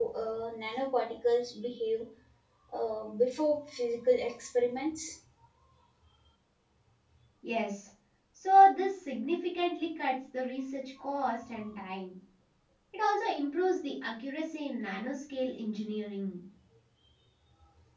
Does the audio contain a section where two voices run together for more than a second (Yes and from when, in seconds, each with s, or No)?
No